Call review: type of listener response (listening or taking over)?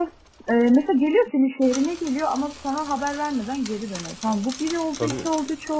listening